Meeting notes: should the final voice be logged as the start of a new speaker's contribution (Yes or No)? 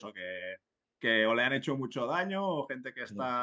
No